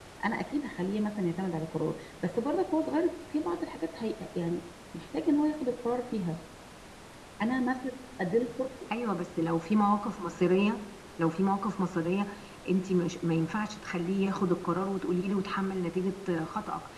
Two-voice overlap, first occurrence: none

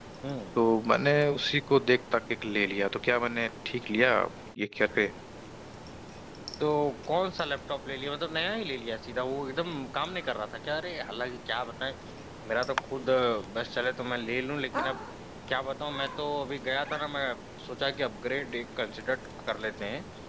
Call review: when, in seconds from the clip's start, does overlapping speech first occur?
none

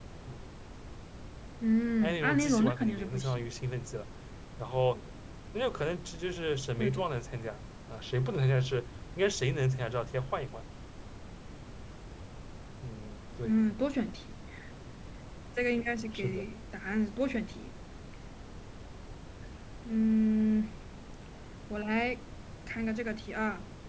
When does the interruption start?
2.0 s

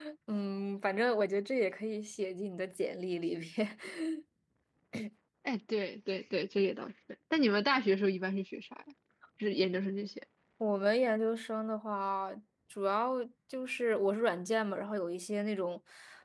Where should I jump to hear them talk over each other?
none

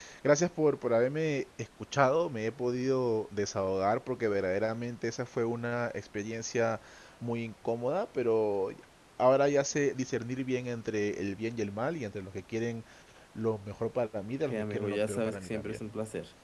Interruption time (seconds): 14.5 s

